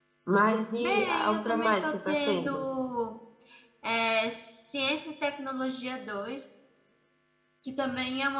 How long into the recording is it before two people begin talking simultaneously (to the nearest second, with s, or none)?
1 s